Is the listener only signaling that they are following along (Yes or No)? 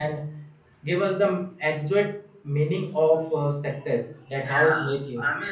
No